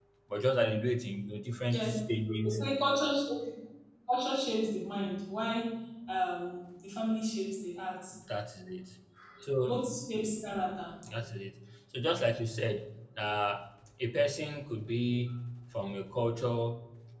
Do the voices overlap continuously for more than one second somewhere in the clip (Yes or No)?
No